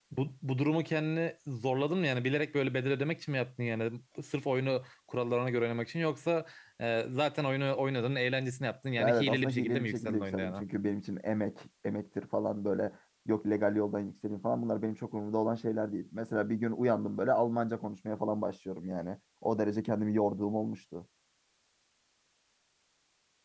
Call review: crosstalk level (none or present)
present